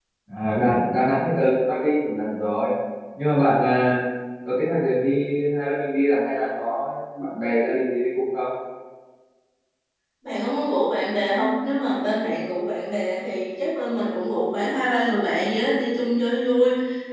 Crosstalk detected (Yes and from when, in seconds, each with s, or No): No